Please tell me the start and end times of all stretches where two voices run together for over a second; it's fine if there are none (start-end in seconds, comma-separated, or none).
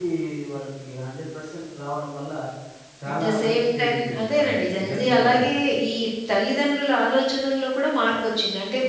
3.1-5.4